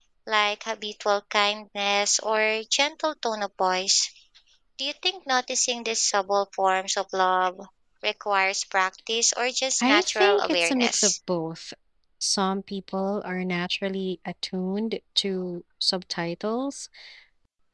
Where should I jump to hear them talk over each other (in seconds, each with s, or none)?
9.8 s